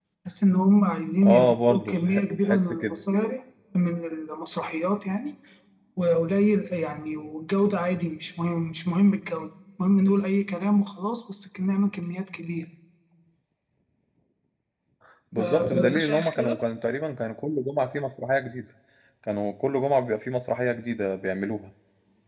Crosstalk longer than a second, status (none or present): present